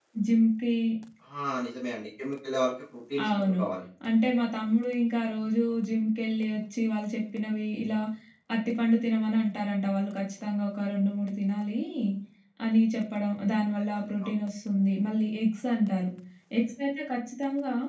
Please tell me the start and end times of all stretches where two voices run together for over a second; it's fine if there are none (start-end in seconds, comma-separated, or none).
none